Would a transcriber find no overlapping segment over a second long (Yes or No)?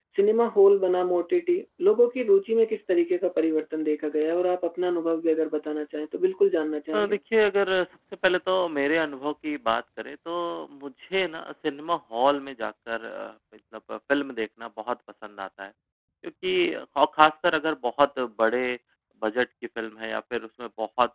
Yes